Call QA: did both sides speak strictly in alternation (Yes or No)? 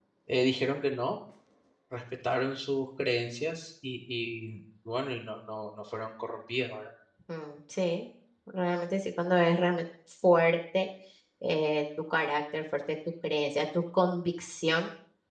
Yes